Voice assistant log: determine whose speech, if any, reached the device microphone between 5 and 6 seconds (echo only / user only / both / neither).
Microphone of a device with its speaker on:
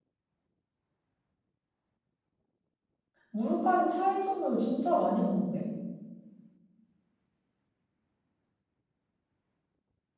user only